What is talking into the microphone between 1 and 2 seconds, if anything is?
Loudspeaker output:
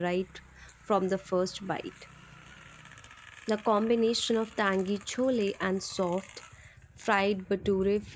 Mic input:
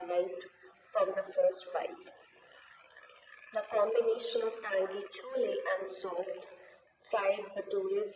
echo only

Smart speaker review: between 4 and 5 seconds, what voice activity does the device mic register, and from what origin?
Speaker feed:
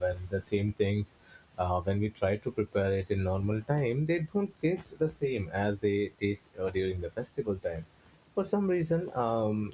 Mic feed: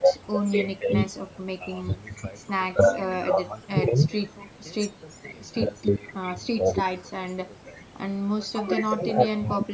both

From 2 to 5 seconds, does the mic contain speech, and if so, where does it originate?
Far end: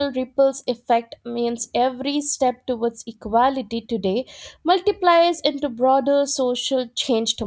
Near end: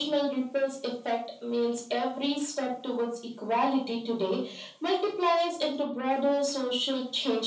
echo only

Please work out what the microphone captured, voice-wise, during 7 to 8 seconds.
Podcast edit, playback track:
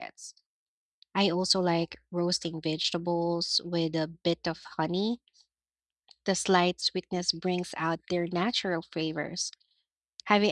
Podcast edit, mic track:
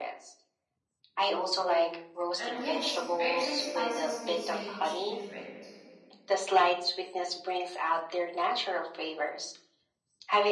echo only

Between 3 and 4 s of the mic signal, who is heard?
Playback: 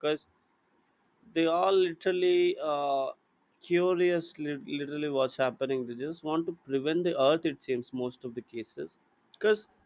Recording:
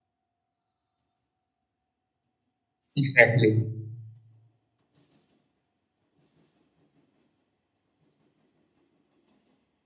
user only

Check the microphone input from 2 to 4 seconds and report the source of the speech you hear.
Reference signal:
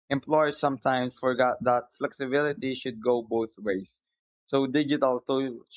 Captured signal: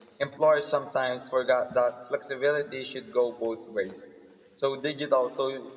echo only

